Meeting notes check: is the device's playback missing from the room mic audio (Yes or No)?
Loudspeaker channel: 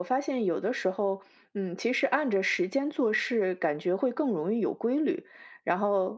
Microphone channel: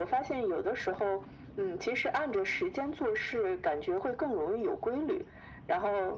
No